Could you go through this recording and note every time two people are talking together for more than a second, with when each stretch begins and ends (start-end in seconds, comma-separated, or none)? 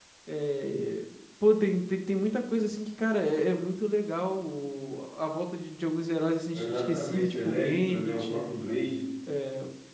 6.5-8.4